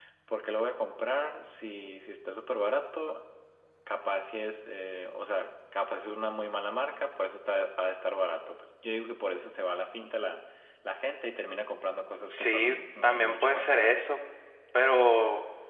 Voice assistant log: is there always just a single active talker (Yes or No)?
No